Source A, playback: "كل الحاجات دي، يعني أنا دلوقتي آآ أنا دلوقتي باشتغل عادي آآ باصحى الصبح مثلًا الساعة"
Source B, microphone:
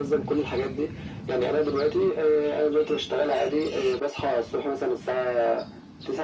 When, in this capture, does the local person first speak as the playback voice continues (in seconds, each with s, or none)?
none